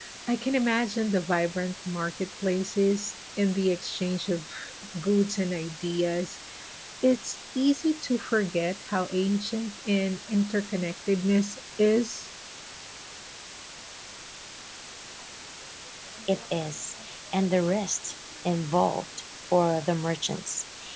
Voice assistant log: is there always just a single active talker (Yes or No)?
Yes